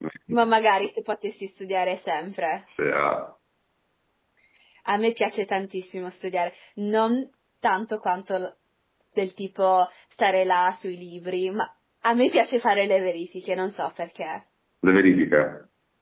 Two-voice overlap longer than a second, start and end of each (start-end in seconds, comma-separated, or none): none